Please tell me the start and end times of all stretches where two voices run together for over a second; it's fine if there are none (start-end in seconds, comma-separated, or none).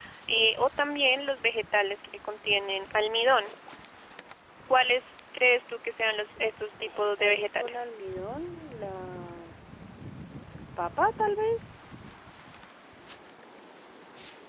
6.7-7.9